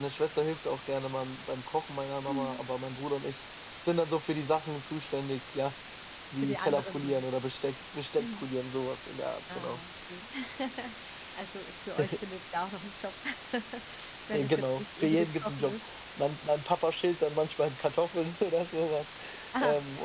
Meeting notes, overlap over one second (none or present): present